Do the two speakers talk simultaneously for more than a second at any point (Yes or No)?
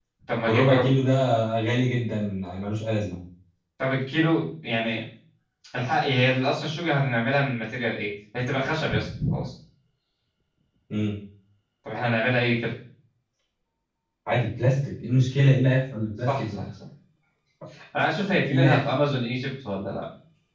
No